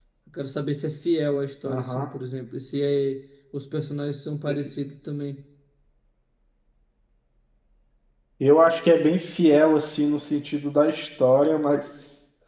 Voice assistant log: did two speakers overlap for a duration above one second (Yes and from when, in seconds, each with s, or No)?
No